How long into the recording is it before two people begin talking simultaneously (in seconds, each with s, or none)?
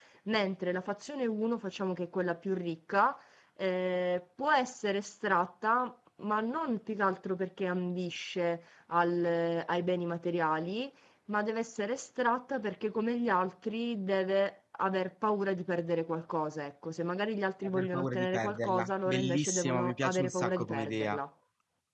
17.6 s